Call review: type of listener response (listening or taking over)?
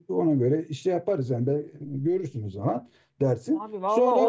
taking over